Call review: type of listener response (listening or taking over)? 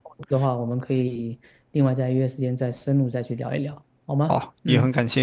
taking over